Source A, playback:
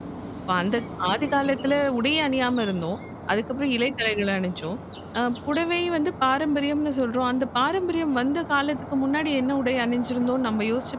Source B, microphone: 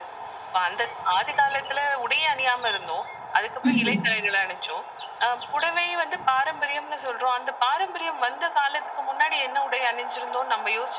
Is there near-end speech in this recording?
Yes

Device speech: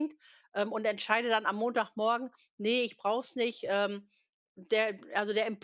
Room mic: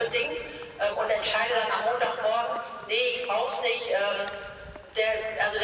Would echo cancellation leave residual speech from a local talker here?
No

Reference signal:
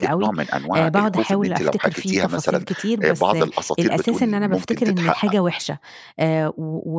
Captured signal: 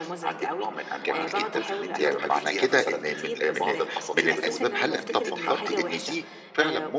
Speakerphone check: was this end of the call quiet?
No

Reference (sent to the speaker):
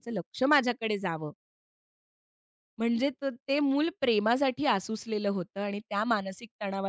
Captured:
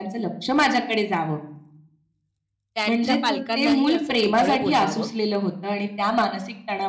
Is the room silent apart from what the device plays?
No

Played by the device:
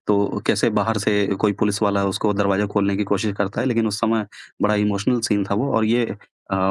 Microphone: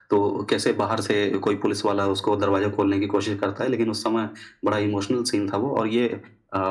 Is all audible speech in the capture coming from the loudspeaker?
Yes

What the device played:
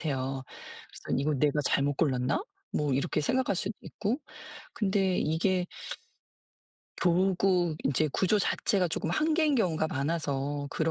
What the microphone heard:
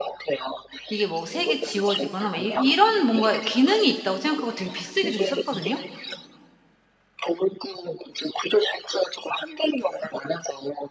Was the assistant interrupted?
Yes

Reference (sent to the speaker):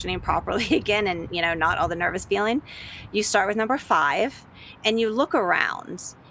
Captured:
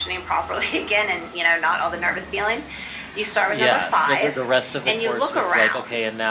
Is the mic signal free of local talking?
No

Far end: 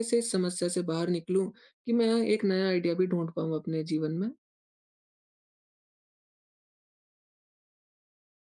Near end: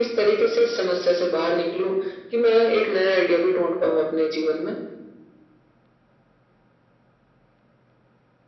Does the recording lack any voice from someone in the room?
Yes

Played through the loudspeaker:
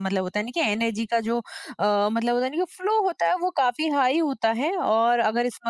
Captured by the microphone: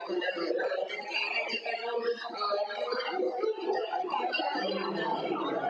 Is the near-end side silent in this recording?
No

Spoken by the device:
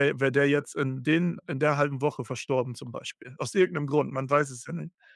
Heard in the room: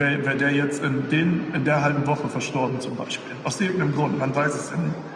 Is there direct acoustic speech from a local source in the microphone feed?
No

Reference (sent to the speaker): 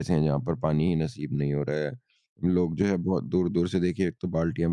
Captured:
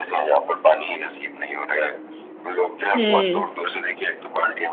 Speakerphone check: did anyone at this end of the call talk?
Yes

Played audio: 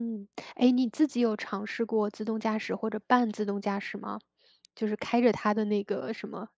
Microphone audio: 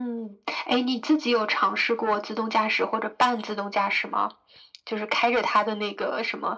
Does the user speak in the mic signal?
No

